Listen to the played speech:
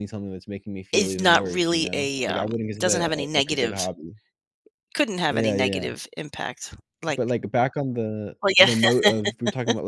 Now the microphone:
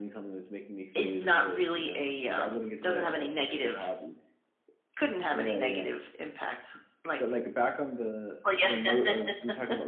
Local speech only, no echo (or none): none